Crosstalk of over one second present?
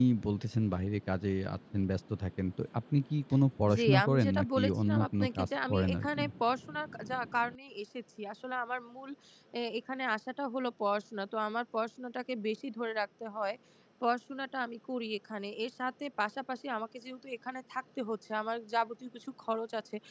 Yes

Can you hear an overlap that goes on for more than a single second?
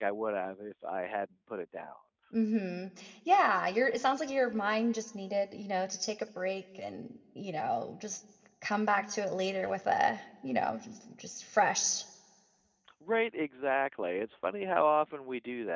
No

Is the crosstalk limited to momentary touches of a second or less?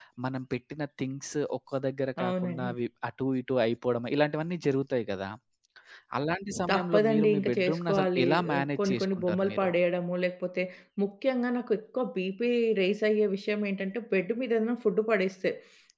No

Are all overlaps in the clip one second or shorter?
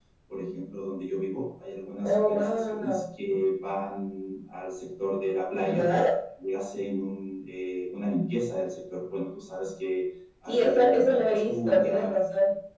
No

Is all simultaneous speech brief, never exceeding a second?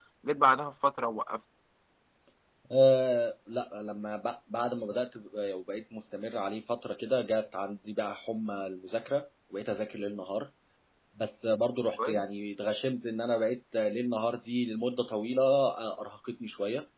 Yes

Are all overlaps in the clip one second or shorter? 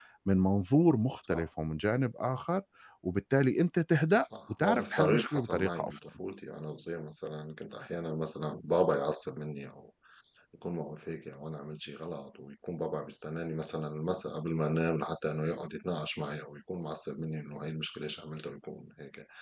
No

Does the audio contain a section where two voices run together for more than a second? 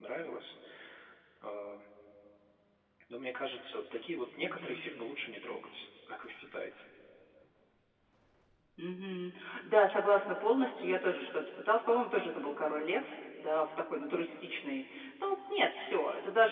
No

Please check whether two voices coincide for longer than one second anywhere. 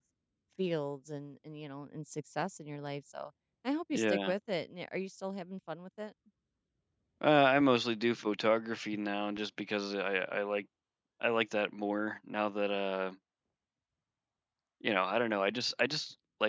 No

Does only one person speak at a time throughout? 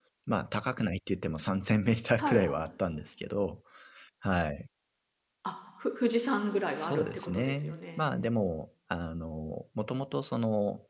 No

